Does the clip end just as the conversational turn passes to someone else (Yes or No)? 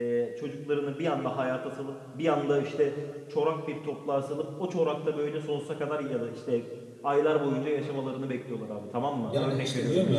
Yes